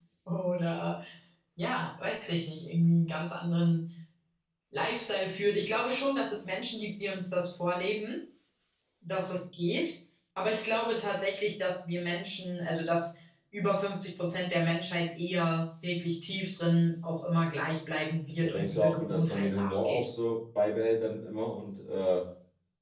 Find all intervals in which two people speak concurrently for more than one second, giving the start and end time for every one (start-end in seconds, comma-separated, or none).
18.4-20.1